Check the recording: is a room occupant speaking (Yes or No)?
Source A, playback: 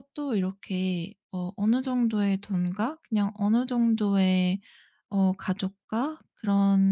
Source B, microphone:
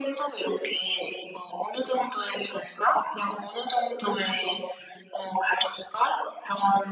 No